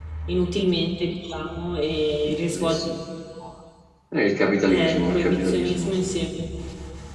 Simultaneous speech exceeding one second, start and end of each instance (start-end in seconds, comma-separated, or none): 4.7-5.9